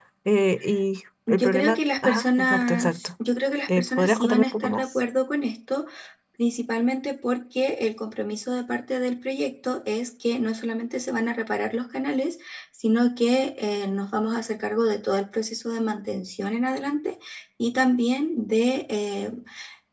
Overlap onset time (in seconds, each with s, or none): 1.3 s